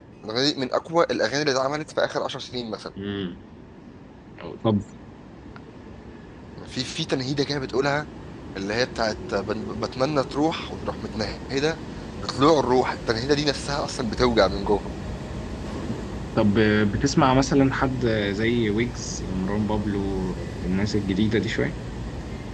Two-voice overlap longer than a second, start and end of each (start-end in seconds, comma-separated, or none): none